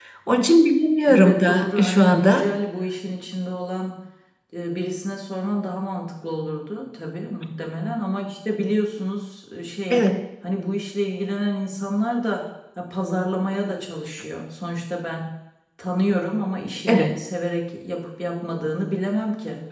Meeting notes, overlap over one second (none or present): present